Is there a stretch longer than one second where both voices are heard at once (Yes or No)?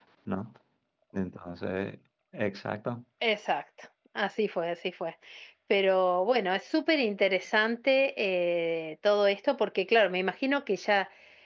No